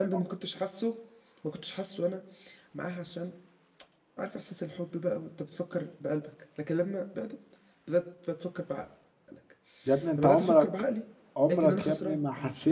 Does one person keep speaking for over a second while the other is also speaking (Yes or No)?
Yes